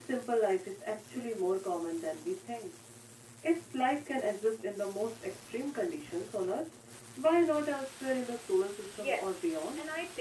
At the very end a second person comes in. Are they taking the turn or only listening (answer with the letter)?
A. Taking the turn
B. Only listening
A